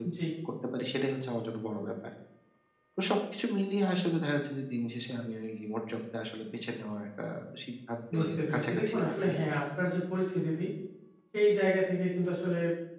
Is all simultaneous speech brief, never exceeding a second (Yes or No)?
No